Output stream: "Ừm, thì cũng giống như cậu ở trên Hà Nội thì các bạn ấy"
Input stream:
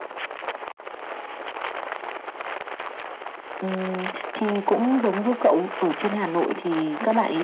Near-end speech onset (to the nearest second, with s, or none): none